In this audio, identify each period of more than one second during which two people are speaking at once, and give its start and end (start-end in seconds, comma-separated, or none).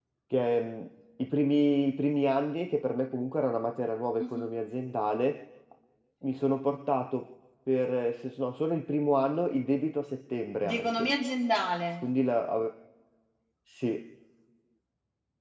none